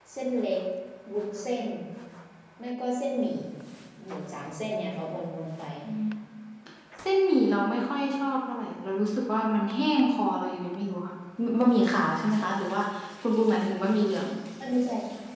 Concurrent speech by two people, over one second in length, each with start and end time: none

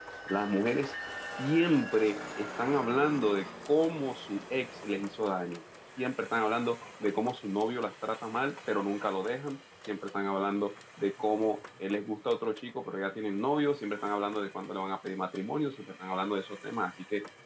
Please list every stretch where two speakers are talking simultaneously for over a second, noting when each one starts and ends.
none

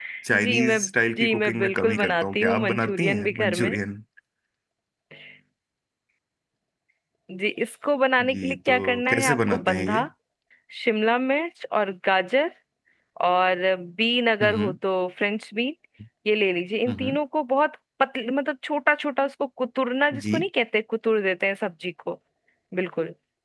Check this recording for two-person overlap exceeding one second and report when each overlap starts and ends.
1.2-3.7, 8.3-10.0

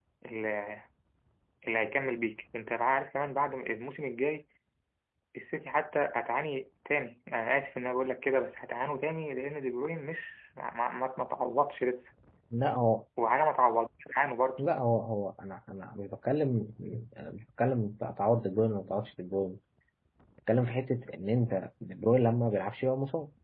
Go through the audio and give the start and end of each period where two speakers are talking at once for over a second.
none

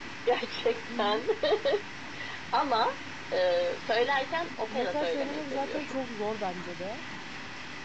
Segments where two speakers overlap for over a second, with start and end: 4.7-5.9

